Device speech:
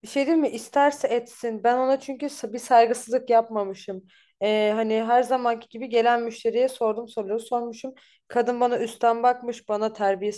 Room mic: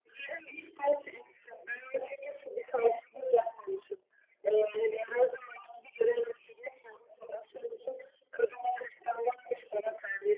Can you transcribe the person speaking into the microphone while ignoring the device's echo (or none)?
none